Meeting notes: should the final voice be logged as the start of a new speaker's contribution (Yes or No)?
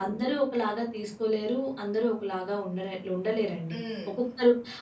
No